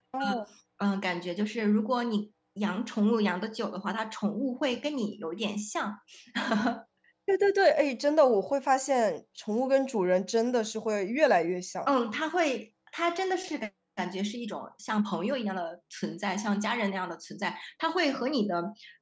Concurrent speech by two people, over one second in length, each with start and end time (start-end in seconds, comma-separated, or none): none